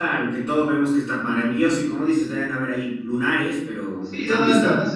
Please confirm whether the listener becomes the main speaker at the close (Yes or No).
Yes